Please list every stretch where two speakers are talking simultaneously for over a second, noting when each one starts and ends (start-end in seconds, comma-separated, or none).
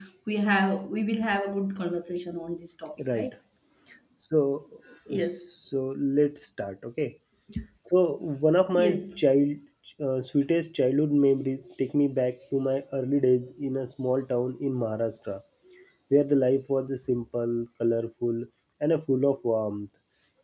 none